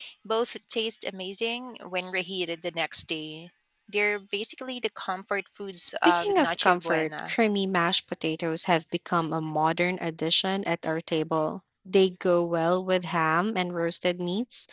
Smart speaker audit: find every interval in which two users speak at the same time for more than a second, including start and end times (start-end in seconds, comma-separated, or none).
5.7-7.3